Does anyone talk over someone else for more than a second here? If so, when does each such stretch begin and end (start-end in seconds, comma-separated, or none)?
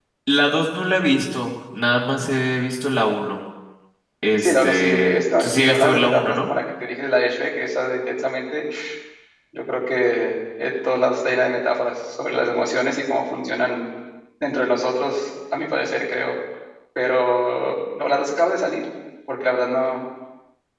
4.4-6.5